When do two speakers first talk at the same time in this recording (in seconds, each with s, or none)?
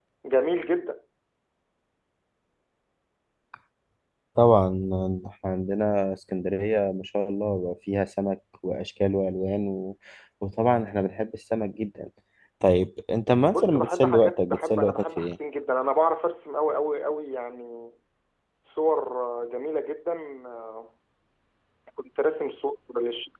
13.5 s